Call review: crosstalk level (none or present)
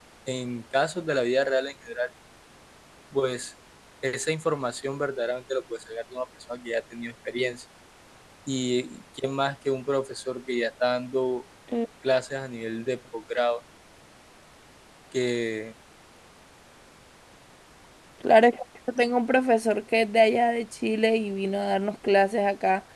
none